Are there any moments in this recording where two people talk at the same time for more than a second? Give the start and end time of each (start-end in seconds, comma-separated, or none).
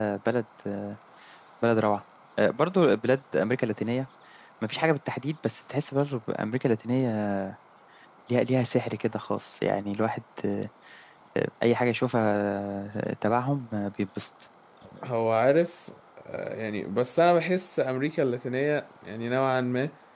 none